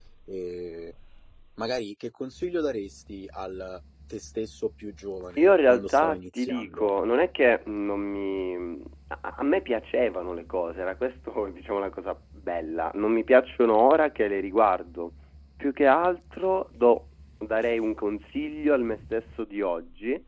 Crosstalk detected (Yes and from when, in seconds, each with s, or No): Yes, from 5.4 s